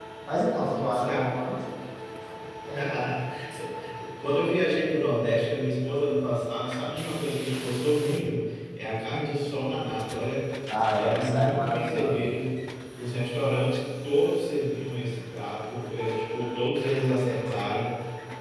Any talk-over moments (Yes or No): Yes